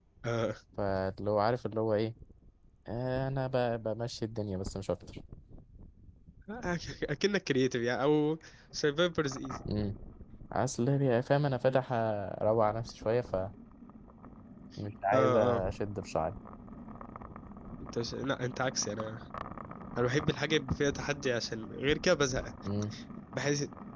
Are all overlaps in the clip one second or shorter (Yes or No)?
Yes